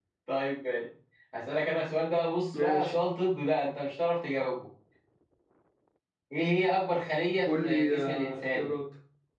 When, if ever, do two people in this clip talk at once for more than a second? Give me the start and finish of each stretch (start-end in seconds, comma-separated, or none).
7.5-8.7